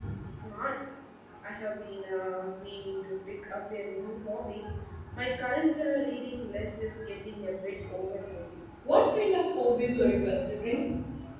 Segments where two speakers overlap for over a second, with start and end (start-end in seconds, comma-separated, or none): none